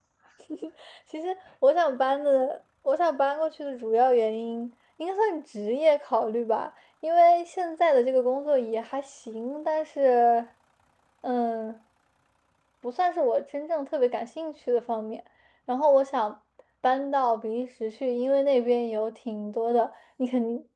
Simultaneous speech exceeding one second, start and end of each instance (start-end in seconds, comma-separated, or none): none